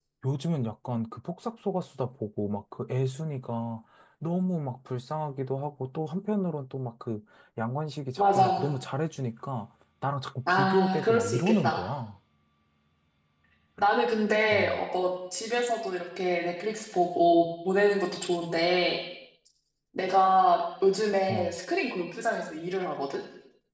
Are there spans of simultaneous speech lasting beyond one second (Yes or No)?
Yes